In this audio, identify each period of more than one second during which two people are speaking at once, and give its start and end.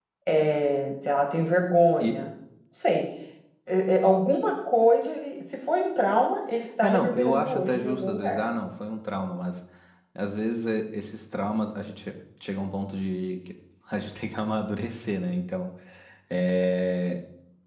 6.8-8.4

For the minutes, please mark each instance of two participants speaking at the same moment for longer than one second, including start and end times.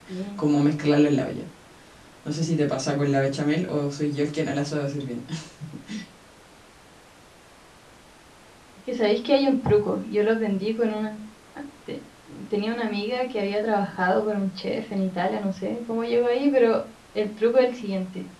none

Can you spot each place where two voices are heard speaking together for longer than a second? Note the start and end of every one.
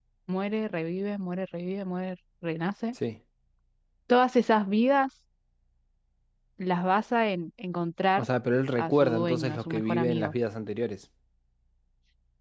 8.8-10.3

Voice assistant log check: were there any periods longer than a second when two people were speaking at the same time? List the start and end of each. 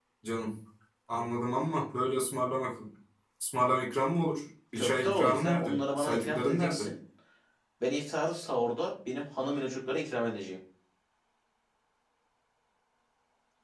4.8-6.9

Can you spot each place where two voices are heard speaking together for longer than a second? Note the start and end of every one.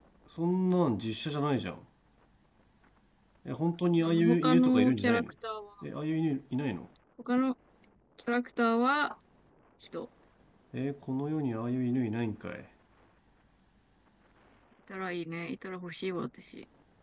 4.0-5.3

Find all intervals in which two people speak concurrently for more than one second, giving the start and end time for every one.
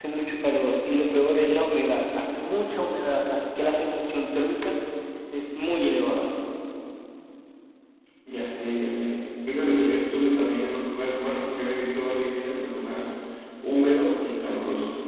none

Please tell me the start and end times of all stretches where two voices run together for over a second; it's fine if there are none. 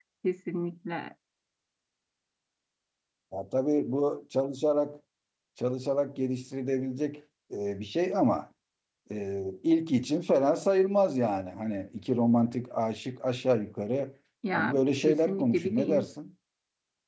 14.6-16.1

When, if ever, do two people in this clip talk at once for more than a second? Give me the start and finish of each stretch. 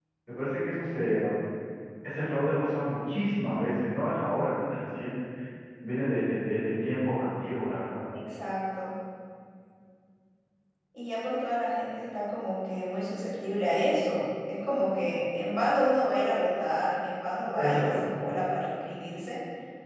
none

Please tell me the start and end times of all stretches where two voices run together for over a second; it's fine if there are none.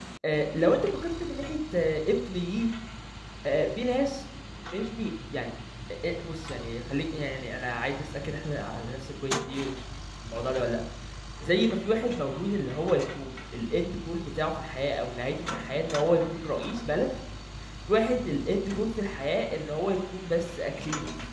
none

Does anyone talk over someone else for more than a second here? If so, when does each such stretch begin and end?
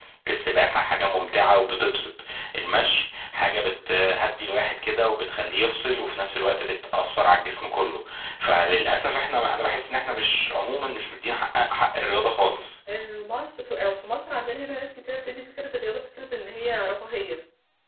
none

